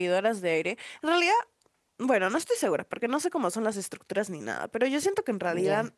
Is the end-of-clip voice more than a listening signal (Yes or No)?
No